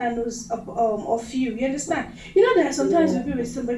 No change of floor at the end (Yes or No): Yes